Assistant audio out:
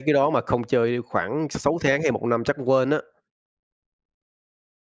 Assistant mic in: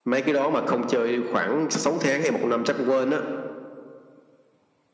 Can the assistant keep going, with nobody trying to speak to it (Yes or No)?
Yes